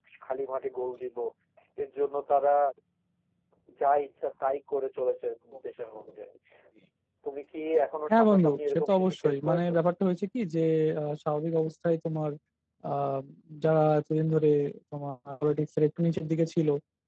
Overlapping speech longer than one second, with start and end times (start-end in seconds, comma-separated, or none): 8.1-9.6